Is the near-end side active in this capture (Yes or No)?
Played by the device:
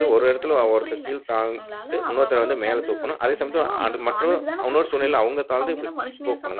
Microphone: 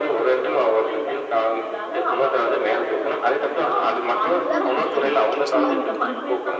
Yes